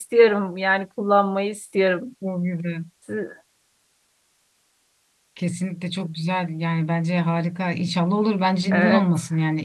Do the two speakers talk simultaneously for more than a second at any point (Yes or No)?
No